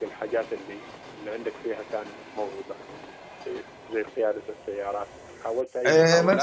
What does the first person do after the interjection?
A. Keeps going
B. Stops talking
B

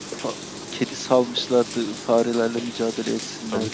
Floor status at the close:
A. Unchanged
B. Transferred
B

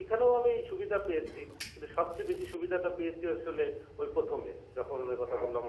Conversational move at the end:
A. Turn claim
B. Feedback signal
A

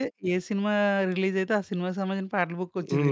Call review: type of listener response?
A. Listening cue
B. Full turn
B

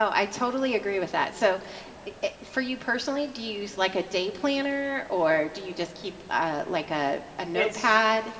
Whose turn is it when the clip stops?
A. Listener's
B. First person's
A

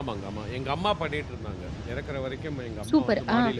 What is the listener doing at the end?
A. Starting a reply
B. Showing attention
A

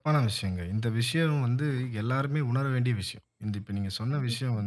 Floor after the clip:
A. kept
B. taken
A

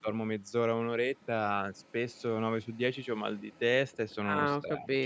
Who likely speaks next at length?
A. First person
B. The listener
B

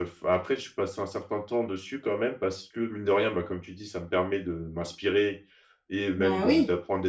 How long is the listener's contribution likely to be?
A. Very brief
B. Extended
A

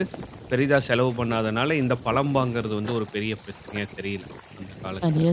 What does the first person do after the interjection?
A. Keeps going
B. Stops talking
B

